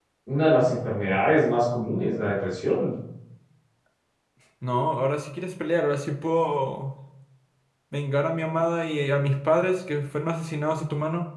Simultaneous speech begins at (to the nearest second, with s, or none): none